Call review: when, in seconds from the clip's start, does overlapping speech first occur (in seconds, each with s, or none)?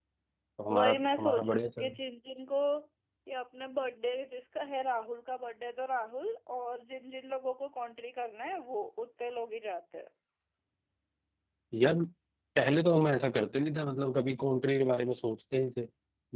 0.7 s